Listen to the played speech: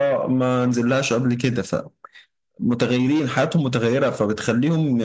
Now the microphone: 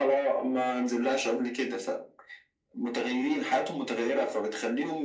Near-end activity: none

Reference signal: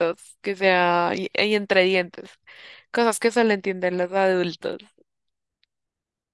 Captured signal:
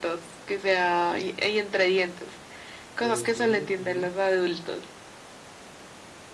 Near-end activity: present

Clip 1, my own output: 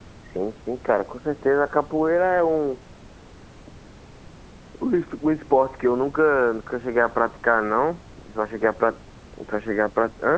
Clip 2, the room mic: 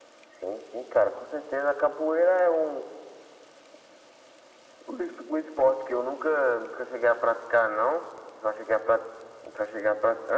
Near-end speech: none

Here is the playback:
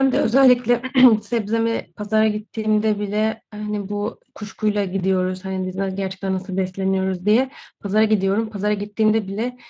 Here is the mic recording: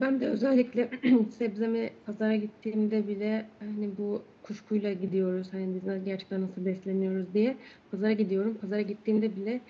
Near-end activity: none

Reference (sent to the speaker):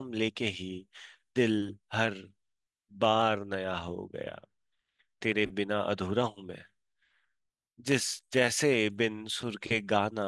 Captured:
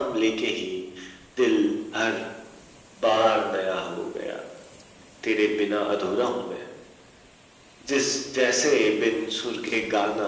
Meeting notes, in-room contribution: none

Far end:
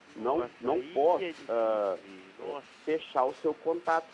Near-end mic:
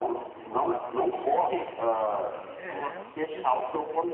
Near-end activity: present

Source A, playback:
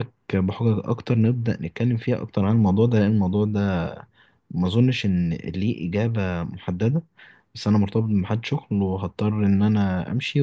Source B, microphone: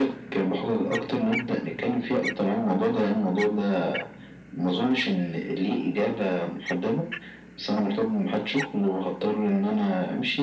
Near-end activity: none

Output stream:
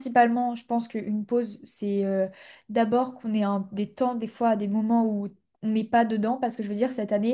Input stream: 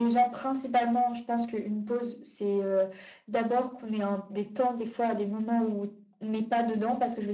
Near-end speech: none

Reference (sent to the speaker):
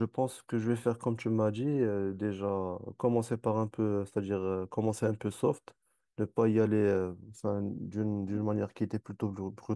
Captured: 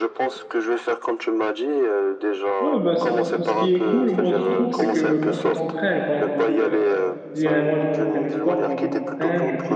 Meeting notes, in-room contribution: present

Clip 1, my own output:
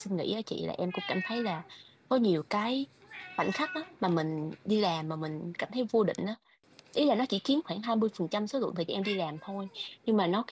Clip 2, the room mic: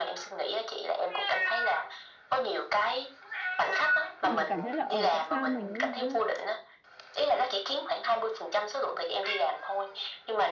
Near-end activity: present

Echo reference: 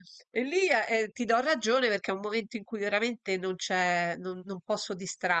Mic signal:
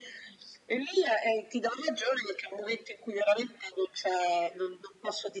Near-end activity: none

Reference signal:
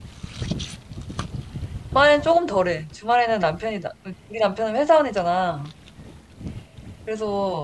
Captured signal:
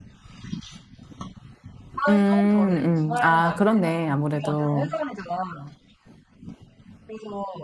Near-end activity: present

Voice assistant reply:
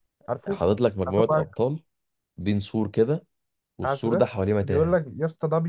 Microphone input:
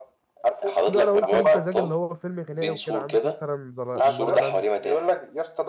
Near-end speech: present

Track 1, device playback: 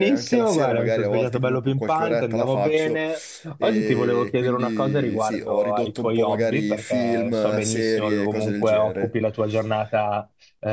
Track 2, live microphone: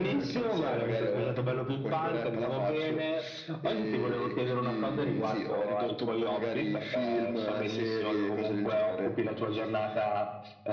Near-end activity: none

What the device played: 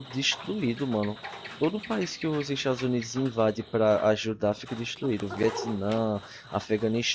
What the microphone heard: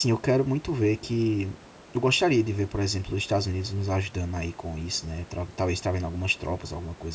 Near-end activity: present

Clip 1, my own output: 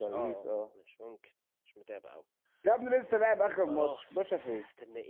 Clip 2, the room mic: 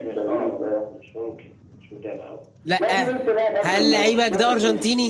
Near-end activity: present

